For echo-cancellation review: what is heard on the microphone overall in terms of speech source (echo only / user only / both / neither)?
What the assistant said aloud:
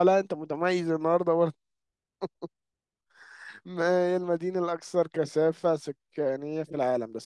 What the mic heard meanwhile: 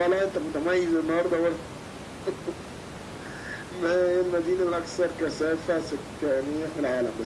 echo only